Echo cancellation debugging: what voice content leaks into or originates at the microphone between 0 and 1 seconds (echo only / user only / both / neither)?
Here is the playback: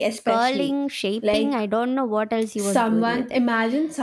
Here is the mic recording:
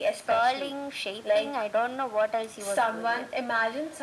echo only